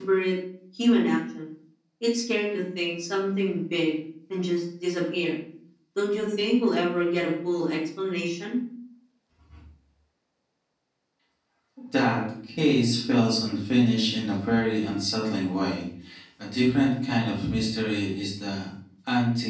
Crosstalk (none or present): none